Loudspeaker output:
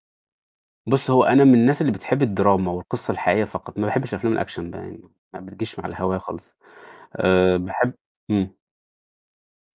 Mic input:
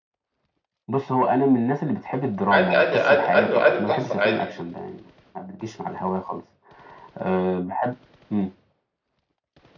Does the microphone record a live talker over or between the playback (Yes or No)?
Yes